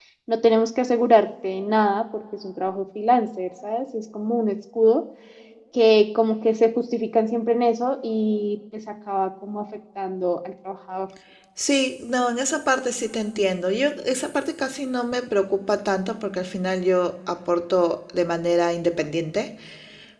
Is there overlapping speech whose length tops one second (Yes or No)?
No